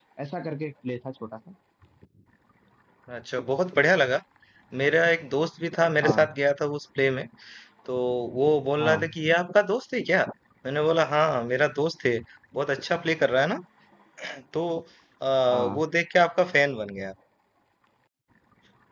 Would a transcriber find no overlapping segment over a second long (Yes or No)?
Yes